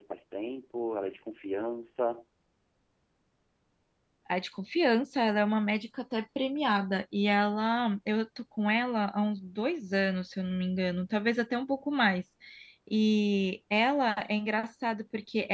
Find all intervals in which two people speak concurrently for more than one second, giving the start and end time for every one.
none

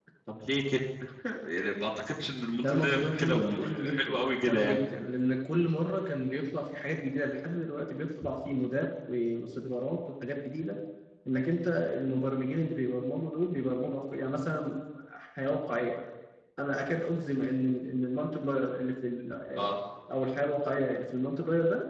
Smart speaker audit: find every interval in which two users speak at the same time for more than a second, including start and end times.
2.6-4.8

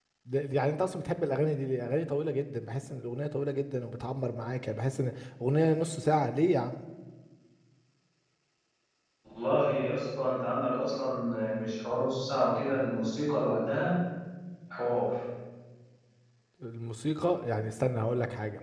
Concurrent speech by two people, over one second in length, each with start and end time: none

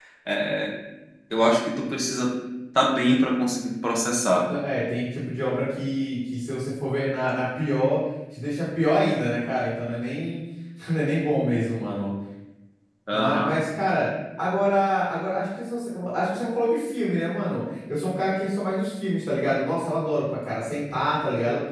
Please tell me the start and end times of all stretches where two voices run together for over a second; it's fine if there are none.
none

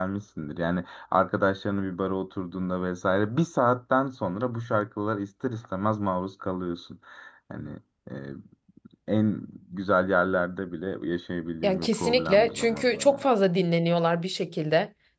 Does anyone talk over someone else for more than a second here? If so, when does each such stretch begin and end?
11.6-13.3

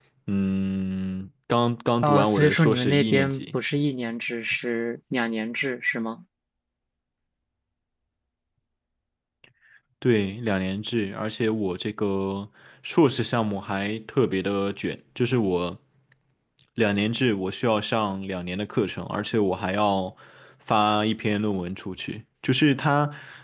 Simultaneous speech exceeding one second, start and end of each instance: 2.0-3.5

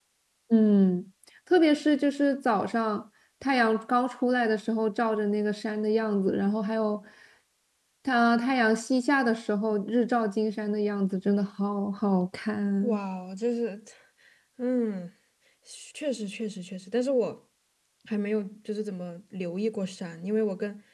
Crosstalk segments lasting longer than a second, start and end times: none

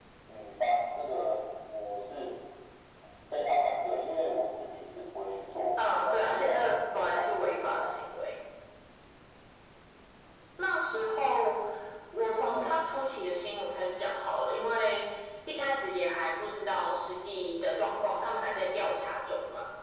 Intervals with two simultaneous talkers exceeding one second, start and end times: 5.9-7.8

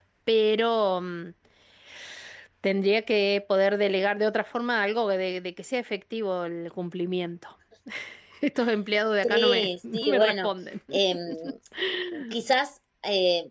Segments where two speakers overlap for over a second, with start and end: 9.2-10.5

